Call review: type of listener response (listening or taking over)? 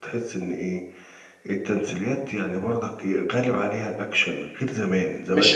taking over